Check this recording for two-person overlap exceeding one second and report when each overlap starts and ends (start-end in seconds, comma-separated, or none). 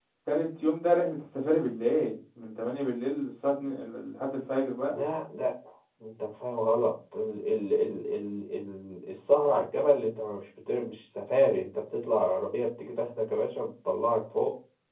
none